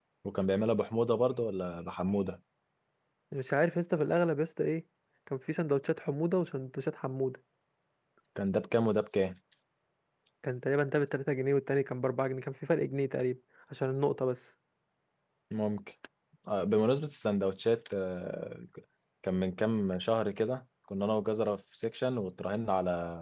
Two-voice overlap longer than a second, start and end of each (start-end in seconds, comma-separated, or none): none